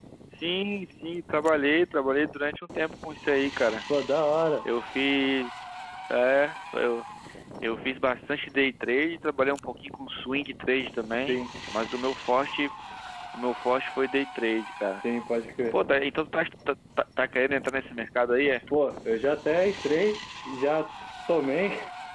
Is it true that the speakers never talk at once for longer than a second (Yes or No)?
Yes